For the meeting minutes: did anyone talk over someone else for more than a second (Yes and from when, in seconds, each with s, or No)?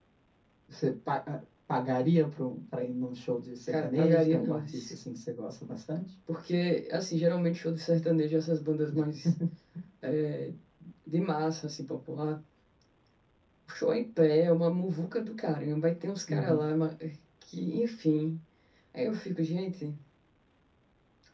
Yes, from 3.7 s